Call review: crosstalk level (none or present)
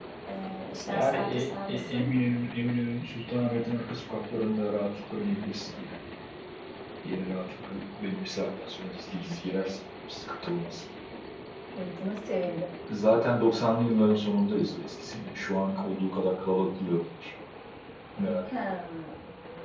present